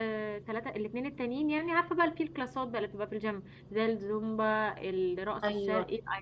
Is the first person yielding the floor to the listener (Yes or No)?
Yes